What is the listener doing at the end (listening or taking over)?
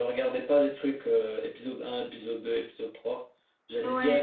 listening